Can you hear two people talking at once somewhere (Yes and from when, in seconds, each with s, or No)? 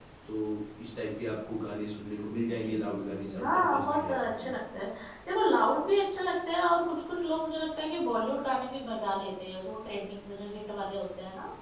Yes, from 2.5 s